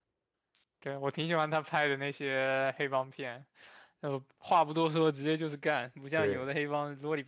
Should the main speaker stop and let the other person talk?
No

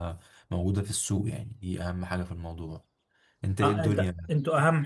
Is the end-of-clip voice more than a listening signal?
Yes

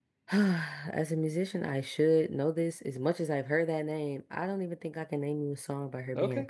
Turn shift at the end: Yes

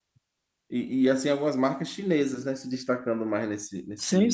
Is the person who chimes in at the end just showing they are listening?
No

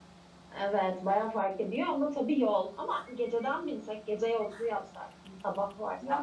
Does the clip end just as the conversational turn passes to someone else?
Yes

